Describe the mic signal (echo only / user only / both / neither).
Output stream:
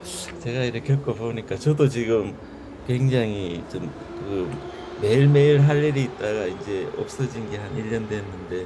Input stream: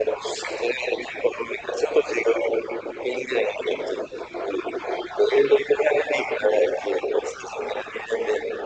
echo only